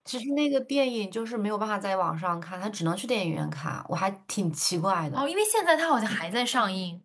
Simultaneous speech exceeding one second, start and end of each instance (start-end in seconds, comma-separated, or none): none